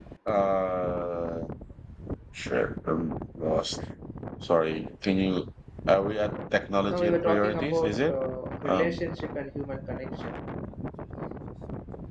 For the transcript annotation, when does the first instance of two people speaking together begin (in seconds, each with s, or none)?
6.9 s